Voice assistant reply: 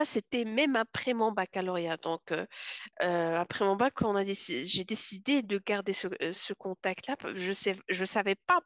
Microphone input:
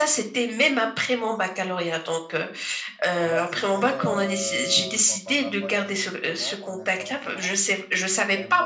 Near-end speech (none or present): present